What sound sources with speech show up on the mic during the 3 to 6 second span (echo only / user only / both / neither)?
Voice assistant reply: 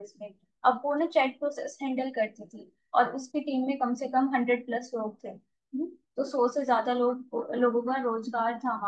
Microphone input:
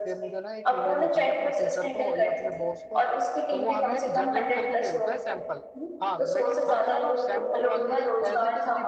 both